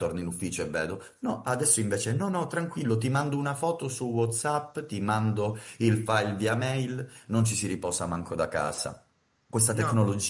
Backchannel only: Yes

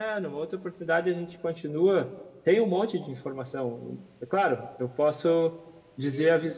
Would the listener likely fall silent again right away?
Yes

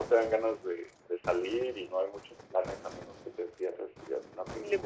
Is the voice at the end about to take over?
Yes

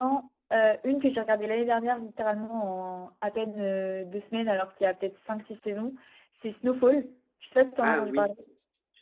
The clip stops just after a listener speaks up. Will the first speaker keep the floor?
No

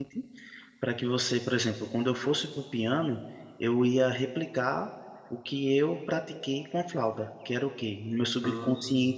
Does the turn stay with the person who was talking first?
Yes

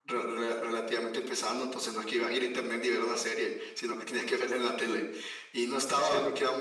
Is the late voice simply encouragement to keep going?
Yes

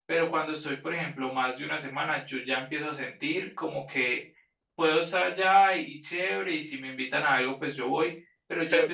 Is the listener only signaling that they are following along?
Yes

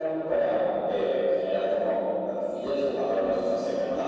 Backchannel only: No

